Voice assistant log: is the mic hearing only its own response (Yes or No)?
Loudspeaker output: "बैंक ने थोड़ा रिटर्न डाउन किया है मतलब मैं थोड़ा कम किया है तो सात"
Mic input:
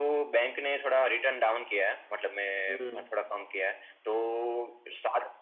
No